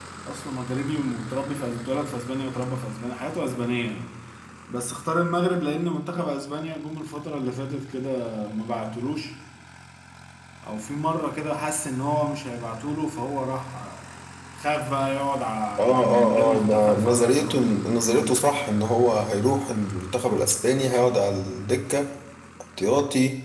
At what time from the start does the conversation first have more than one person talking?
16 s

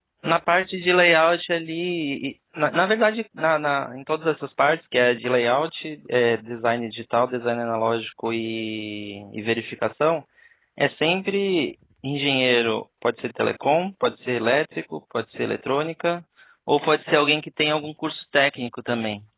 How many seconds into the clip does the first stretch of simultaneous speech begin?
none

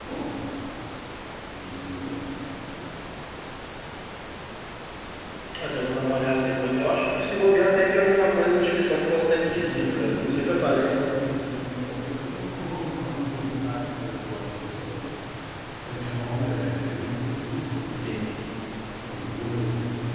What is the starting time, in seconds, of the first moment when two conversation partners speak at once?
9 s

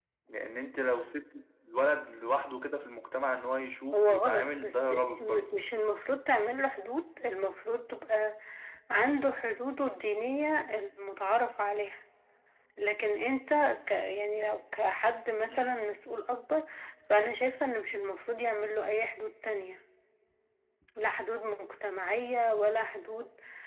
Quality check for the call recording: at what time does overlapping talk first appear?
4 s

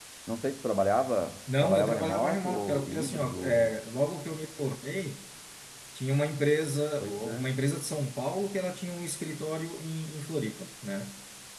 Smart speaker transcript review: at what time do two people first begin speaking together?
2 s

